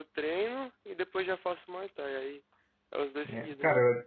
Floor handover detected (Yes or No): Yes